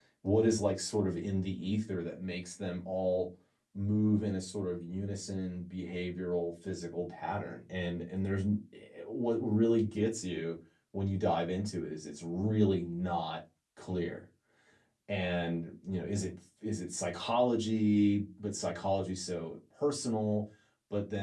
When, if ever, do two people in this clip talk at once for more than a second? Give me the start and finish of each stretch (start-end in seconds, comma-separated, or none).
none